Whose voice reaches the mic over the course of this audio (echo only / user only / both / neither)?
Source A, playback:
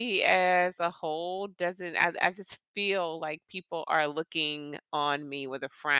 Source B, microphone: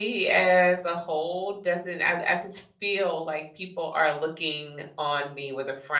echo only